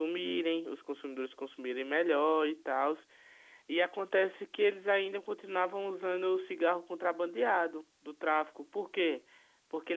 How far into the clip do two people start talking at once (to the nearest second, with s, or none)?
none